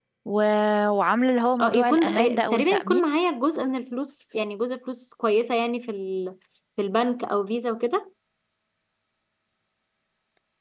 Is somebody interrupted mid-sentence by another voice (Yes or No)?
Yes